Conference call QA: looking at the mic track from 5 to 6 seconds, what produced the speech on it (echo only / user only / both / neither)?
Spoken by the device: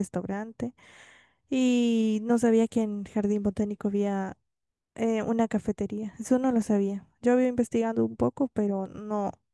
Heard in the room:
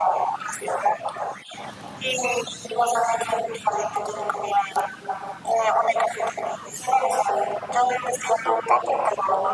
echo only